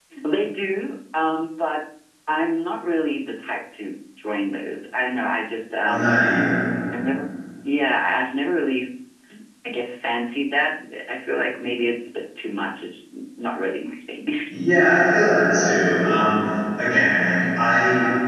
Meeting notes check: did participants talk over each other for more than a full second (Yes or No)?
No